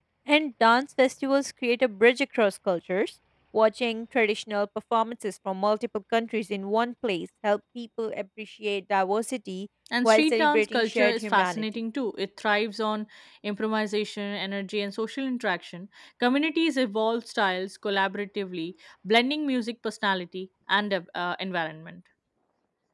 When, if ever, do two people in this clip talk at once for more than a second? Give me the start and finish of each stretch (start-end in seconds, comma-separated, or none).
10.0-11.6